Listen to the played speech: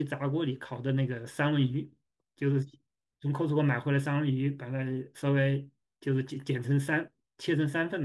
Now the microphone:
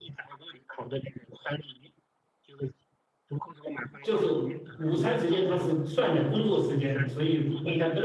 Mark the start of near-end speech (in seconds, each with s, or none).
4.0 s